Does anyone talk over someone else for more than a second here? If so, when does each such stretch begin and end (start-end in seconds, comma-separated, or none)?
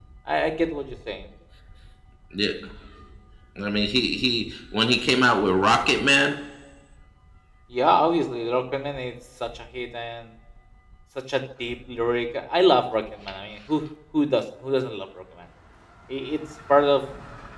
none